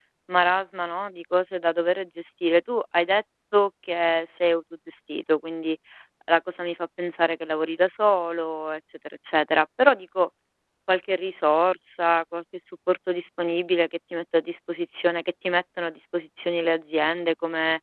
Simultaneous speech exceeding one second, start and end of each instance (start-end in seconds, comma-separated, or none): none